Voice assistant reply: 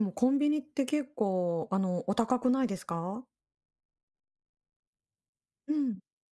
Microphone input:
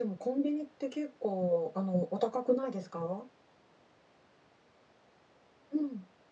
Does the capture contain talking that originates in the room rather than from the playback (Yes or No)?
No